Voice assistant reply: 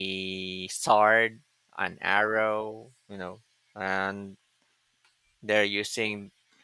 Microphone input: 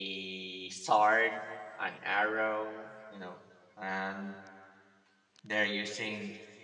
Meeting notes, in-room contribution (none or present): none